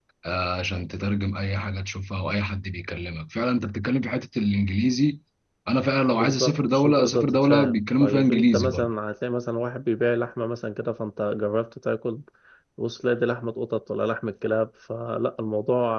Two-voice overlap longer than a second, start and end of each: 6.1-8.9

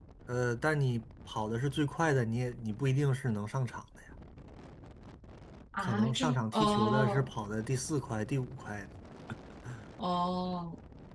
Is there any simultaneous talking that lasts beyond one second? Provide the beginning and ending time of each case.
5.8-7.3

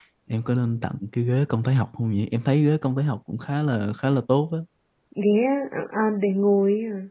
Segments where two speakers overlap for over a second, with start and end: none

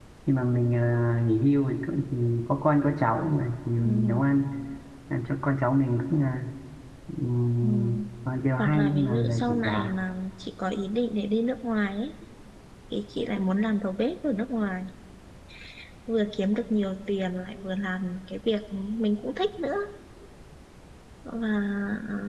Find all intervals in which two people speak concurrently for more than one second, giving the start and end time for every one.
8.6-9.9

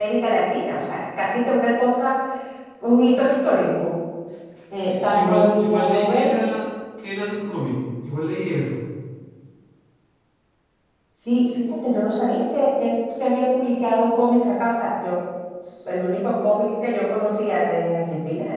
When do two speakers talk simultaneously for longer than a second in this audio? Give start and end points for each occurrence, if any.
4.8-6.4

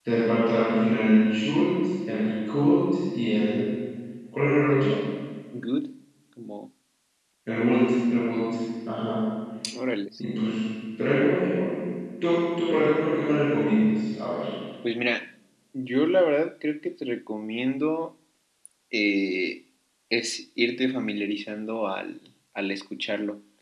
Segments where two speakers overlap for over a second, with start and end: none

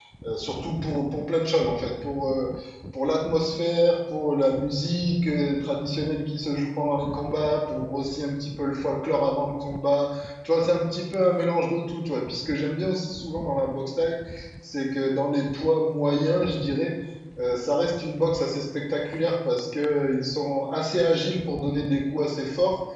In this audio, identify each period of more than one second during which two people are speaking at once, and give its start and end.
none

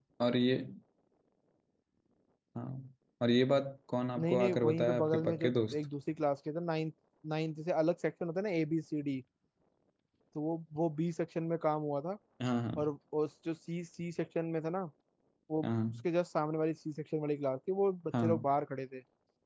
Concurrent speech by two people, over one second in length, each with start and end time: 4.2-5.8

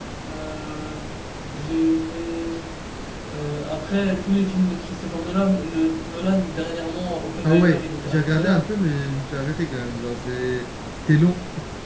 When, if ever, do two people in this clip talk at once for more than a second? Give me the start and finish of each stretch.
7.4-8.7

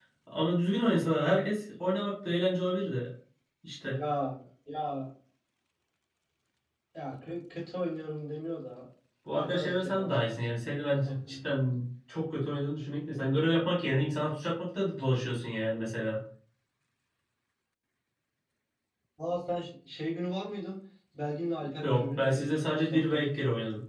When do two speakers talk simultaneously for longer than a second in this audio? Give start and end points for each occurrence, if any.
9.3-10.8, 21.8-23.2

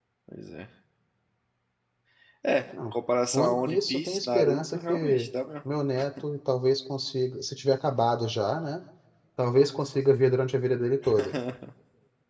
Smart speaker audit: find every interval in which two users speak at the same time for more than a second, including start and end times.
3.3-5.3

